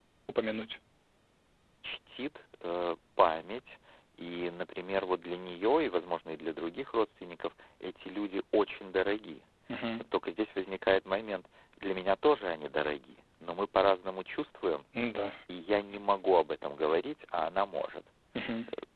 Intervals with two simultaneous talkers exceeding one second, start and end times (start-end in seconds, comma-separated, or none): none